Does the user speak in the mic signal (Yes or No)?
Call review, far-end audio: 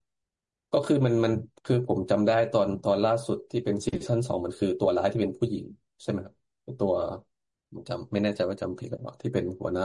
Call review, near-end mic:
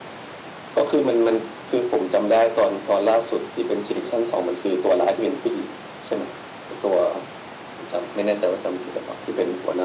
No